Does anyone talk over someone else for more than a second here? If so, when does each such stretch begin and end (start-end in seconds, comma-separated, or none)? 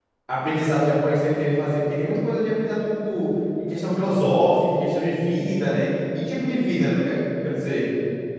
none